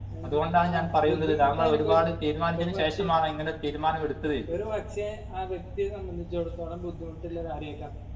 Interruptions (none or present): present